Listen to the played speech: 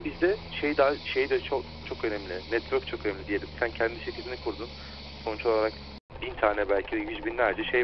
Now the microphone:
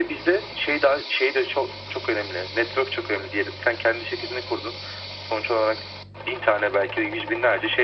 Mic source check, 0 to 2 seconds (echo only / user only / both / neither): echo only